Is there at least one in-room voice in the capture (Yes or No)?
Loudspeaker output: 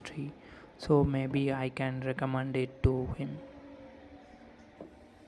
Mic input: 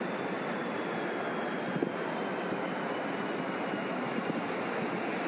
No